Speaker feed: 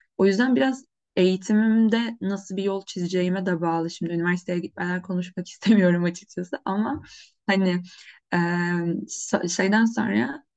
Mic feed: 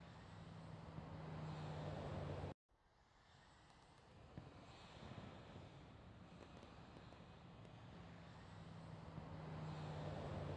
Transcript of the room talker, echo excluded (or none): none